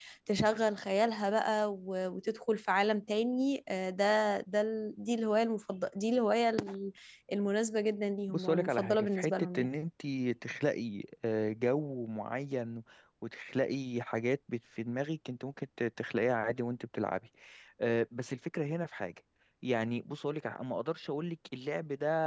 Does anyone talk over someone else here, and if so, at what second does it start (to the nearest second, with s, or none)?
8 s